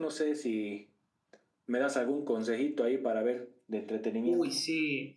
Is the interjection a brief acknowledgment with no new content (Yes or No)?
No